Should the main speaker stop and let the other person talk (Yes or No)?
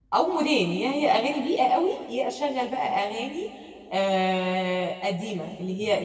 No